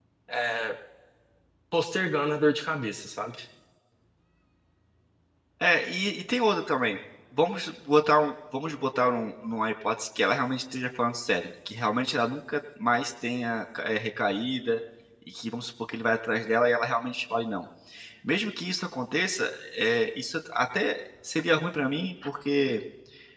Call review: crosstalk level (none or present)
none